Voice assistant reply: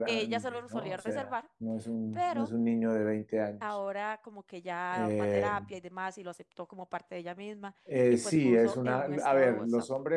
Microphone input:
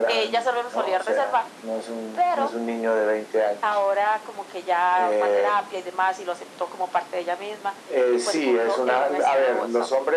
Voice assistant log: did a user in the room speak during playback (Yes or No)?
No